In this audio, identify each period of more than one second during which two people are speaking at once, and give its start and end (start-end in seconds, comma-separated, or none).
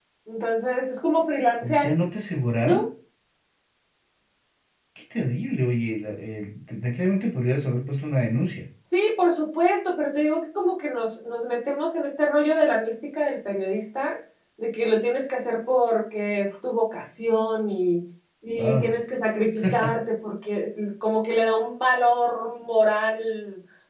none